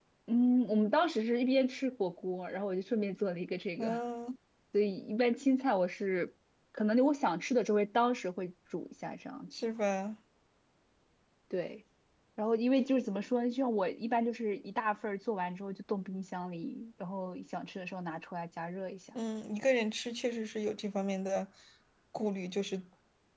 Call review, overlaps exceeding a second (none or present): none